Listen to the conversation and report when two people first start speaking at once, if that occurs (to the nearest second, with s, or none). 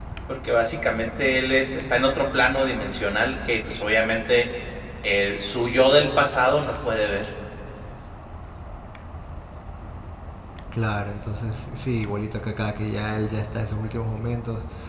none